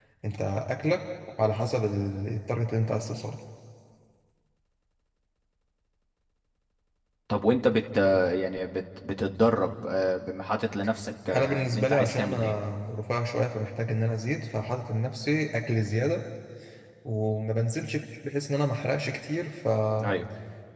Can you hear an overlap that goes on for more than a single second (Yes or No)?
Yes